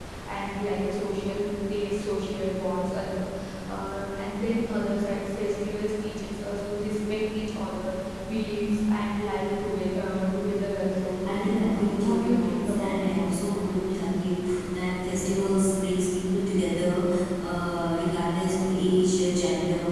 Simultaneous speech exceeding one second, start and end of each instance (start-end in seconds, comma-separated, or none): 11.7-13.2